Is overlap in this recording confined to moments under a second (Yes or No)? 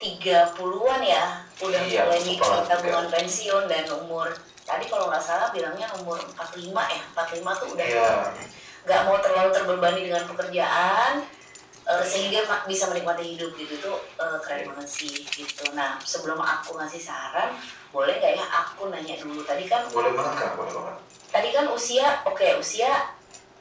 No